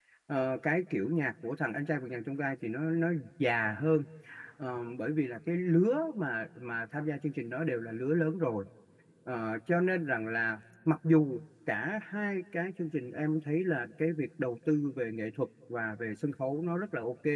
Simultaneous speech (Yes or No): No